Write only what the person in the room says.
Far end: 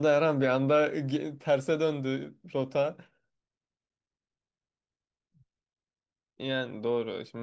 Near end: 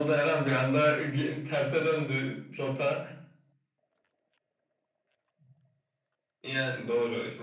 none

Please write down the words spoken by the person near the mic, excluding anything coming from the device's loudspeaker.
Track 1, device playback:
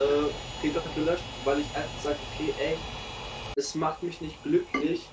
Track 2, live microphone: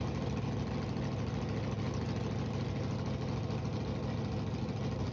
none

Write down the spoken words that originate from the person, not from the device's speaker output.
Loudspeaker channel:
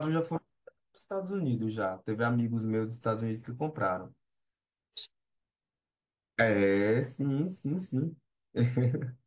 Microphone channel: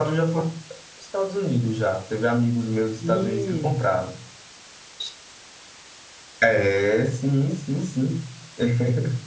Hum,

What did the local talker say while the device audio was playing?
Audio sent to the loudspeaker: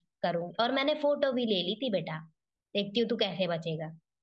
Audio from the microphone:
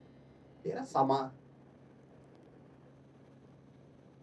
तेरा सामान

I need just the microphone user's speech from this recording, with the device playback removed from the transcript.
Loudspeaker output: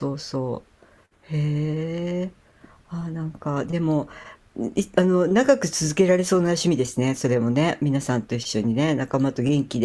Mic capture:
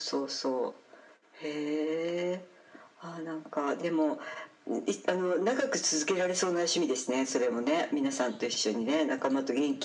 none

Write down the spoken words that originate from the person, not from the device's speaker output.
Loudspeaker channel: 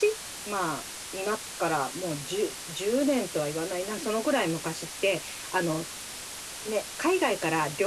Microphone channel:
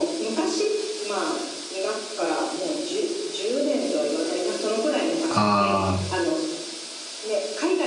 あ

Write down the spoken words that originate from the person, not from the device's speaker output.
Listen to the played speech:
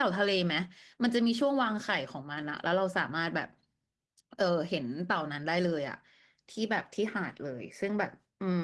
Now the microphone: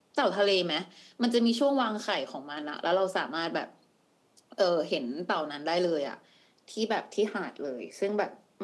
none

